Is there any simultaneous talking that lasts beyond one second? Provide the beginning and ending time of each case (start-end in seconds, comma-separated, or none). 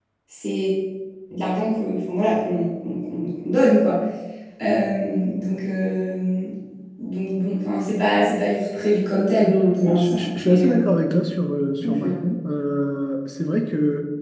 9.4-10.8